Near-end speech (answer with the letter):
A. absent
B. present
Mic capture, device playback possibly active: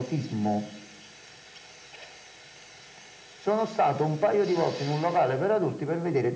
A